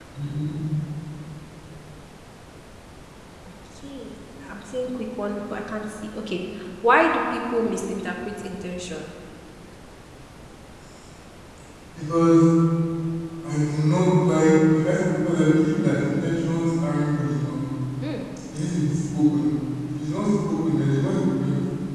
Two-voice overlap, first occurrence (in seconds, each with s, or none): none